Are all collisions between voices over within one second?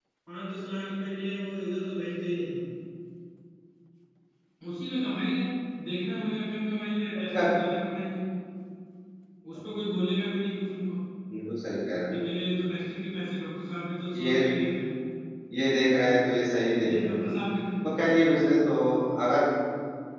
Yes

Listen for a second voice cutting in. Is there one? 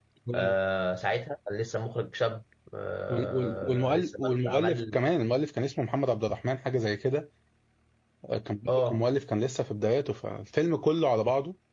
Yes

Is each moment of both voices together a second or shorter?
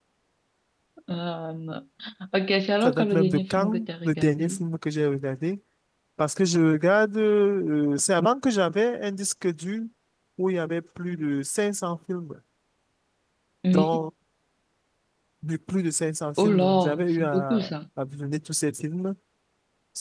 No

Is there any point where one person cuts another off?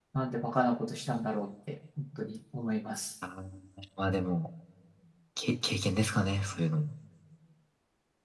No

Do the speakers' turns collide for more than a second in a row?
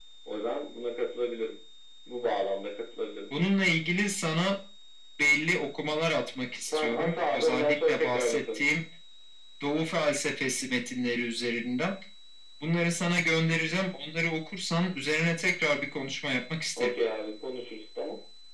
Yes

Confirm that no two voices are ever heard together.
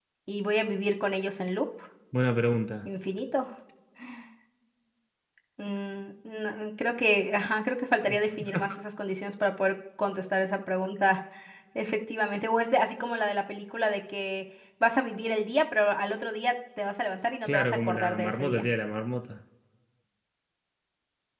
No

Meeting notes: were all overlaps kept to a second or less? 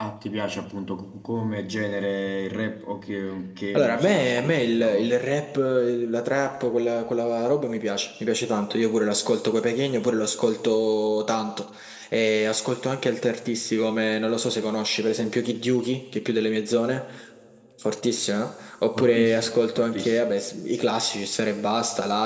No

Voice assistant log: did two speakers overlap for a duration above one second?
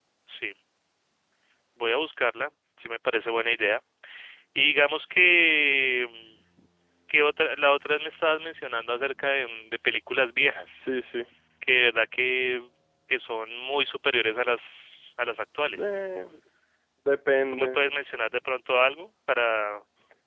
No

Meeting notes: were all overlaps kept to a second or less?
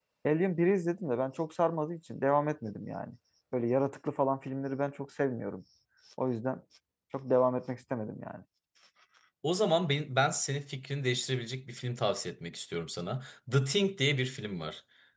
Yes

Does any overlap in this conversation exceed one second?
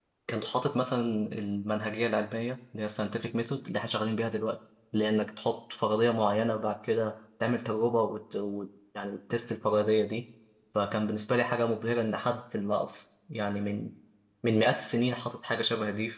No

